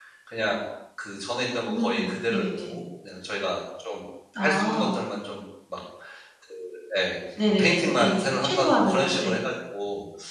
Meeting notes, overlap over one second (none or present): present